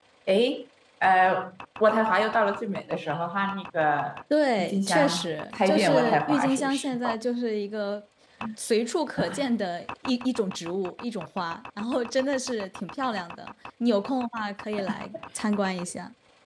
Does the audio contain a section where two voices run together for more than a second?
Yes, from 4.6 s

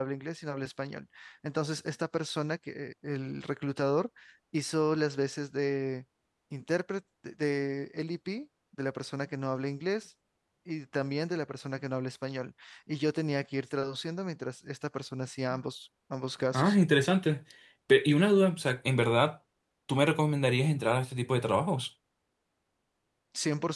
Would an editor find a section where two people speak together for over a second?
No

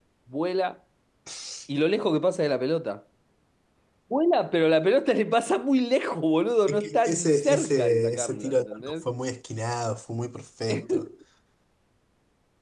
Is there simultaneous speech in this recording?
Yes, from 6.7 s

